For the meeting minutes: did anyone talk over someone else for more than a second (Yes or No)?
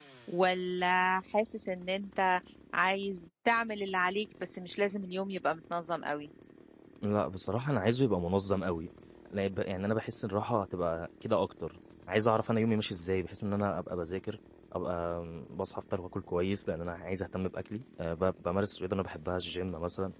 No